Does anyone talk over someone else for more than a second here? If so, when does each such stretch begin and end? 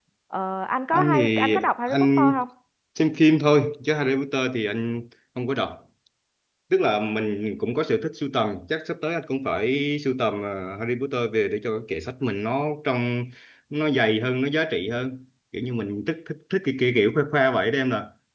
0.9-2.3

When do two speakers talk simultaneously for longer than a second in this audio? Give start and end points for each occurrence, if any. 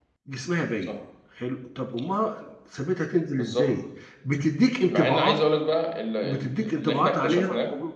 6.2-7.5

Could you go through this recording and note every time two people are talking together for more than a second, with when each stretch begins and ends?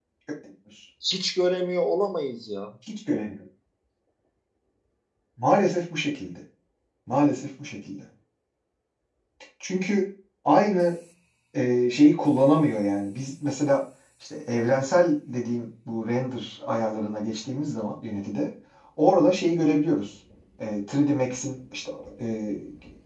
none

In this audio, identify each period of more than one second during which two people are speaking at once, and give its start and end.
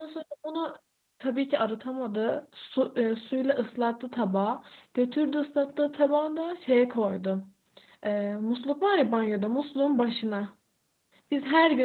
none

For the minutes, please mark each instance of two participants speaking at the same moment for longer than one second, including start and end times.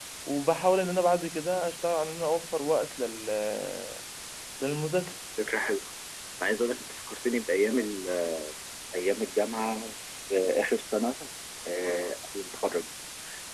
none

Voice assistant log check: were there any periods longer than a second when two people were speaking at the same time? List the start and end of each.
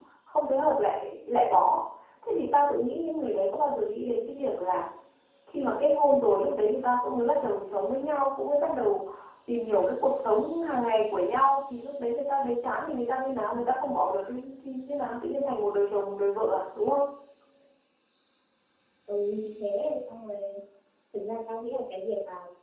none

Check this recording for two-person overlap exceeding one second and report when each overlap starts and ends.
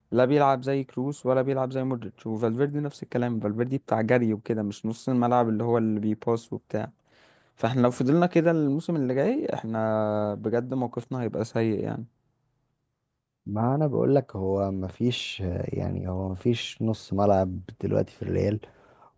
none

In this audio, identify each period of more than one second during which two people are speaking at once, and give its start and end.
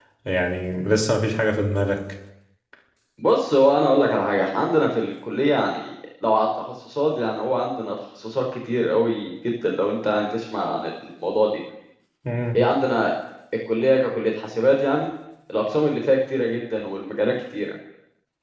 none

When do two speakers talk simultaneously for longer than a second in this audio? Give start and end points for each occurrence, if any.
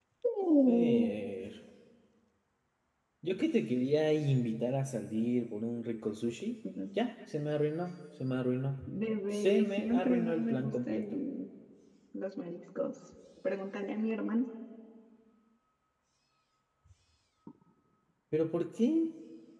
9.3-11.0

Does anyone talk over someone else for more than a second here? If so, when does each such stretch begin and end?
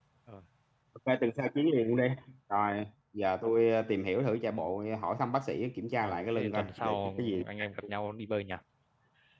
6.0-7.4

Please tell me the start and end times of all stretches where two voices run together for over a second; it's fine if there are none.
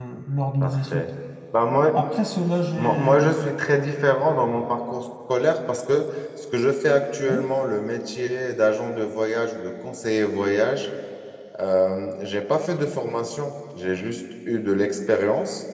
none

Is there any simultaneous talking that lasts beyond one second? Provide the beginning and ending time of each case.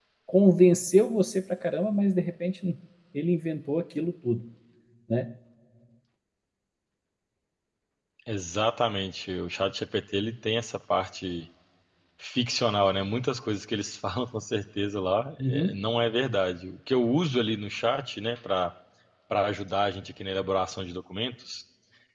none

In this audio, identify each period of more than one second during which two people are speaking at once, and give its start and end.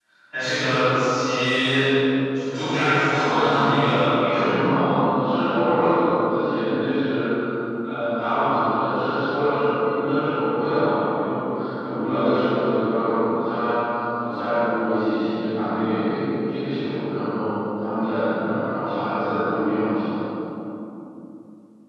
3.2-4.6

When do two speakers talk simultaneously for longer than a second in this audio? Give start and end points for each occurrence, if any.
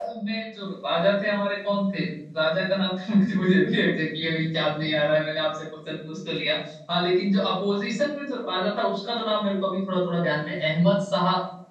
none

